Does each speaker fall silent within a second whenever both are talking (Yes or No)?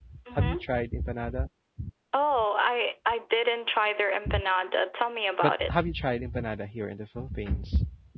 Yes